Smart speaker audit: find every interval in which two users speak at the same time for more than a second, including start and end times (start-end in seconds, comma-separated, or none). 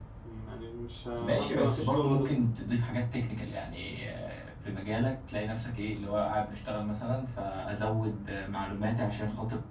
1.2-2.5